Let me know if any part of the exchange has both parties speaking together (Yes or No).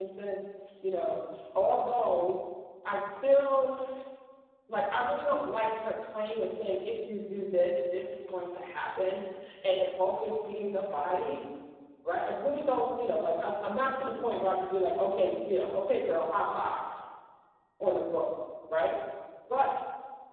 No